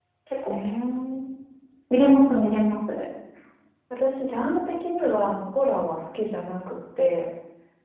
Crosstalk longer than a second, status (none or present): none